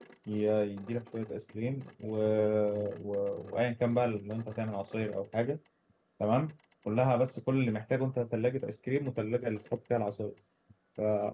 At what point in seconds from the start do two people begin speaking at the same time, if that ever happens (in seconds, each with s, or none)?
none